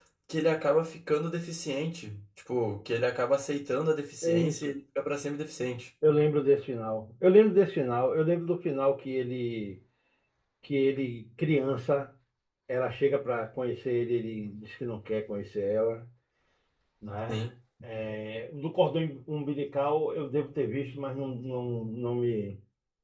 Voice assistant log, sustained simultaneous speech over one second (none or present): none